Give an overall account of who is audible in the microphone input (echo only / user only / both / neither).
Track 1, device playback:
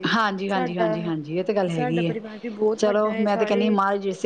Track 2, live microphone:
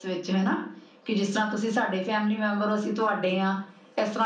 user only